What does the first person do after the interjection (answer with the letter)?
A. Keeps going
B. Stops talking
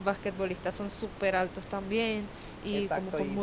B